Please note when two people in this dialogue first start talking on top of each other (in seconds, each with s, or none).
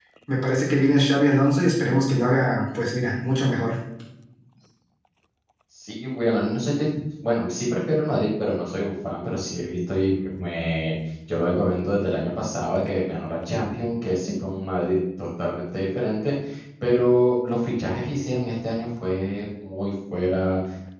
none